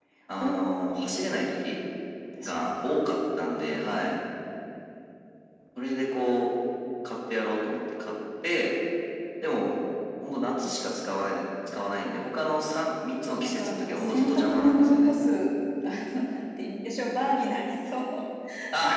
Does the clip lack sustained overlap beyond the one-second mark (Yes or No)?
No